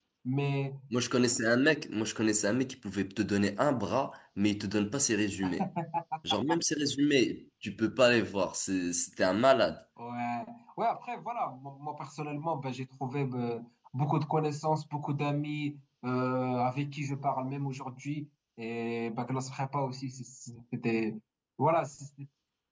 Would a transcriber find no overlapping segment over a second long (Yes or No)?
Yes